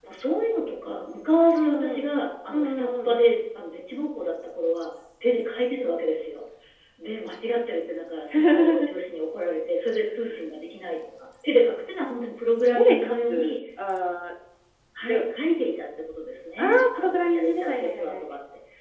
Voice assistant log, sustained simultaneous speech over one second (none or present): present